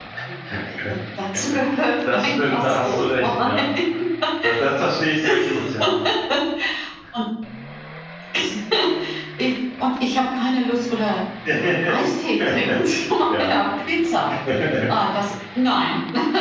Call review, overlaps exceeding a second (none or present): present